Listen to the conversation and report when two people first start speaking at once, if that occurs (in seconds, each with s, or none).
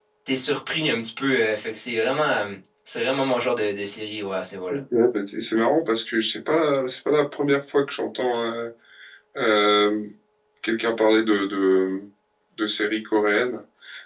none